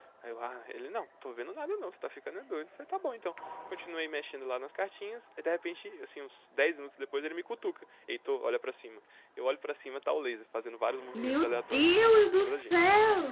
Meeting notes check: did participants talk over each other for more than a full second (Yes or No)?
Yes